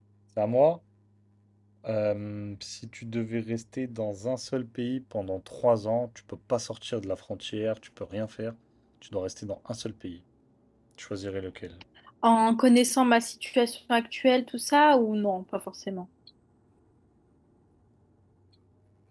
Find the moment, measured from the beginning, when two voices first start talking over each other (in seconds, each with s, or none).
none